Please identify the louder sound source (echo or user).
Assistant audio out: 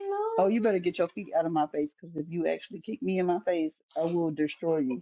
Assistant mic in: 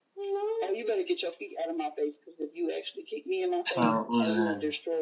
user